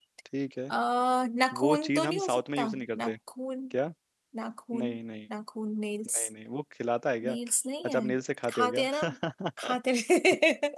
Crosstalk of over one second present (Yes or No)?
Yes